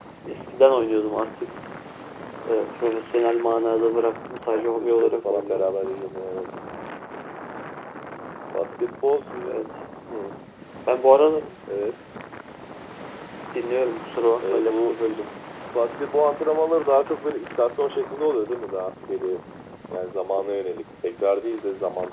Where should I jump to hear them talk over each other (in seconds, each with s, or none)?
4.5 s